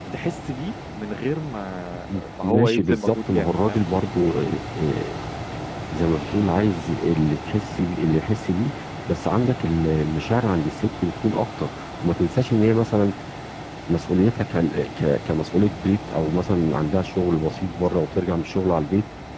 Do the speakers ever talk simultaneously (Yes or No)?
Yes